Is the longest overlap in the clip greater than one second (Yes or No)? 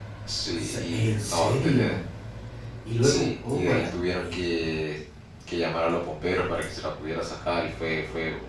Yes